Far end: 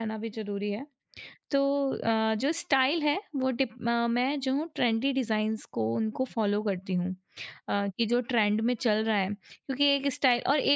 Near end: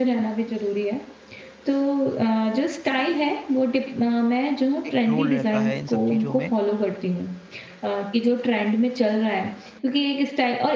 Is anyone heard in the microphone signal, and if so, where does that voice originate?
both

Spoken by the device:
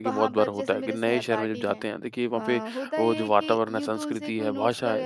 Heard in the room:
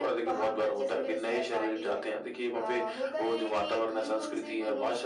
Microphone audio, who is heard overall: echo only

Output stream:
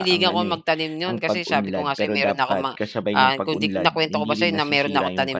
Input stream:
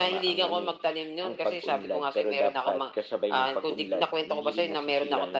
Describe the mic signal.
echo only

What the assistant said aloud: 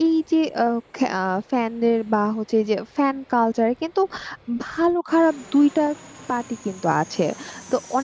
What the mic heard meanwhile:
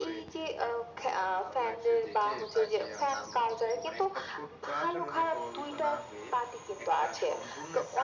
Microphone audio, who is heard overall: both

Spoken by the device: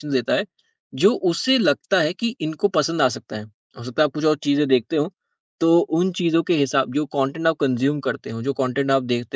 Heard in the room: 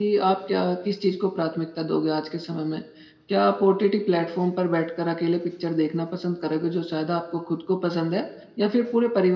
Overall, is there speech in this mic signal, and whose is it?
user only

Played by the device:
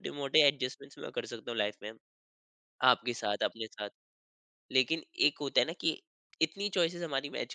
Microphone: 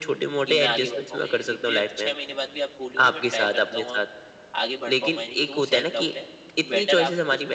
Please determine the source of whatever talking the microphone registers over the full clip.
both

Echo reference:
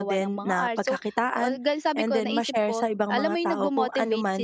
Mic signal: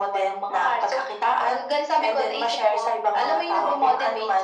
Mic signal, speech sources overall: echo only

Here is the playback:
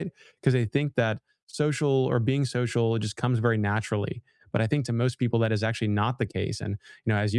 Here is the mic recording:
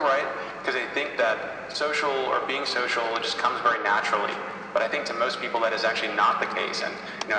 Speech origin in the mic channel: echo only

